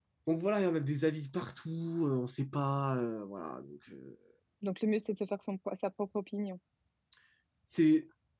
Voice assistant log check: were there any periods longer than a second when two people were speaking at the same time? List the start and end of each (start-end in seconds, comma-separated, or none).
none